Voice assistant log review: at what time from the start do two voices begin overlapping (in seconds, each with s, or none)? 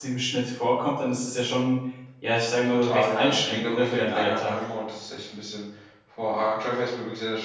2.6 s